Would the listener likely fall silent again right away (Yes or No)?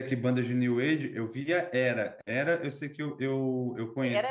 No